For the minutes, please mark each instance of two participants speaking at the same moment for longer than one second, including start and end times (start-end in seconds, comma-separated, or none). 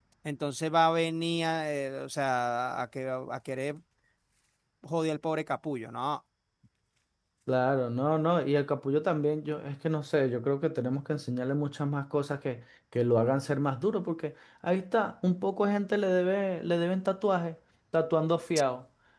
none